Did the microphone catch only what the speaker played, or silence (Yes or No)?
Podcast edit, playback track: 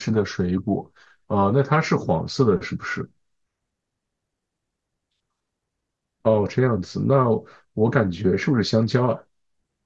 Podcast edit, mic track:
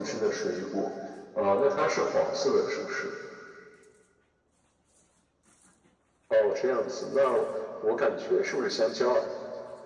Yes